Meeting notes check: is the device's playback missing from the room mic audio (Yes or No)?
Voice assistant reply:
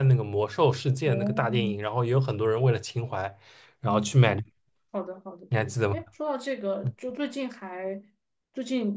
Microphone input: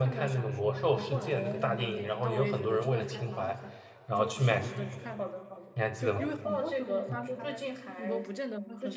No